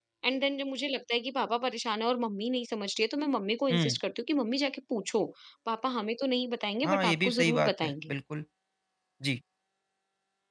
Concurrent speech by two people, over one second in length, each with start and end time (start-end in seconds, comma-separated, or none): 6.8-8.1